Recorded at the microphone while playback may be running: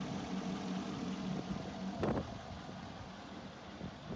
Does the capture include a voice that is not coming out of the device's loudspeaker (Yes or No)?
No